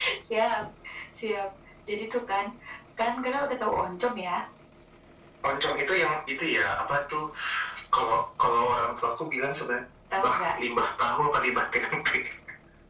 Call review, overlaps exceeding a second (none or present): none